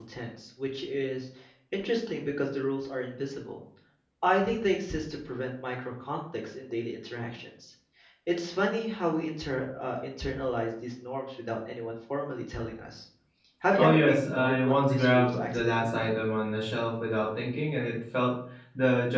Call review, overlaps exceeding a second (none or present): present